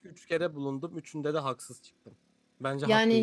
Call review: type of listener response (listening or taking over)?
taking over